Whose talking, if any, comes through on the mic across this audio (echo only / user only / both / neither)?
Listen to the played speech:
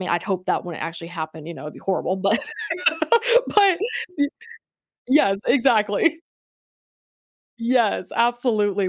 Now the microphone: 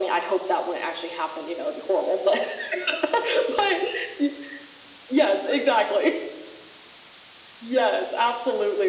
echo only